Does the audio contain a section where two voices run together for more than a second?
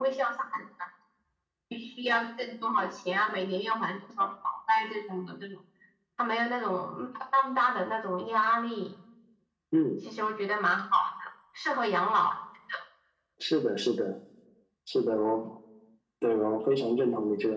No

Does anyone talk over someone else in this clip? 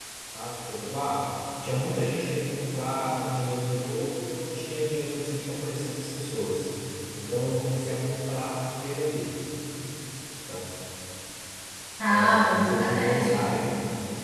Yes, from 12.1 s

